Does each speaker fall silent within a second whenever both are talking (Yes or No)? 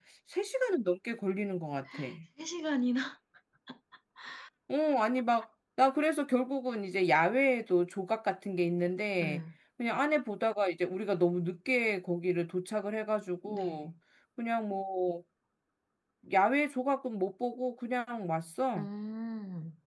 Yes